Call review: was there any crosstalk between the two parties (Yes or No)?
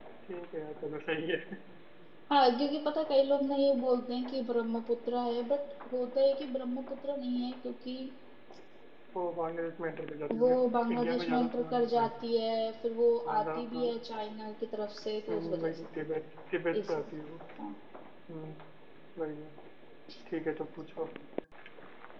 Yes